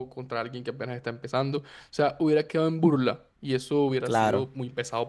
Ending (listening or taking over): listening